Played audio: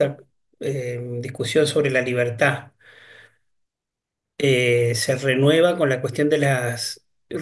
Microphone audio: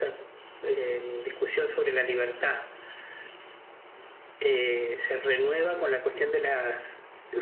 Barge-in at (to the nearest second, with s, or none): none